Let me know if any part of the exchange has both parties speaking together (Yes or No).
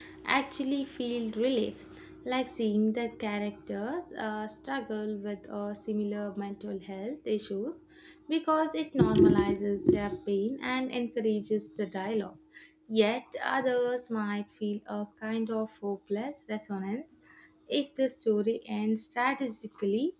No